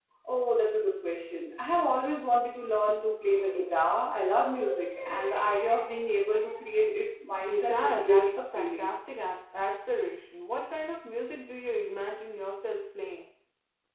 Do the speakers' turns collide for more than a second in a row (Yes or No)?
Yes